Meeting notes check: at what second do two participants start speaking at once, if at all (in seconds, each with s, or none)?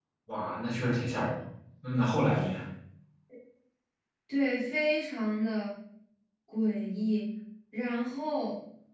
none